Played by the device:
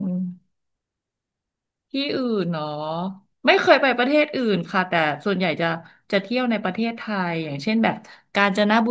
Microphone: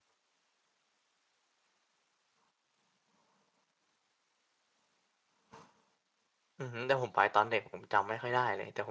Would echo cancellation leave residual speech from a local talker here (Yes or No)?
Yes